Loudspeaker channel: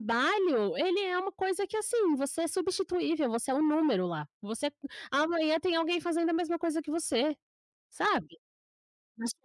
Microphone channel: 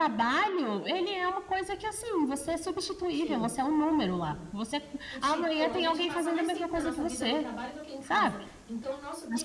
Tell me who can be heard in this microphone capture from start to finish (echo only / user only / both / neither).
both